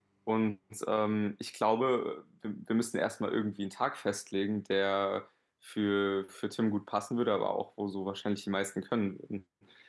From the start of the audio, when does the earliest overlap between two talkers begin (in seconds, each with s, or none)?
none